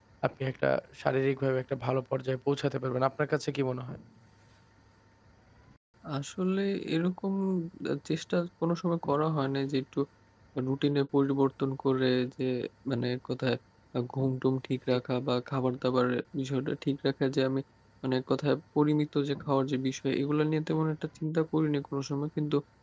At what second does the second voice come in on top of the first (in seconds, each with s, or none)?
none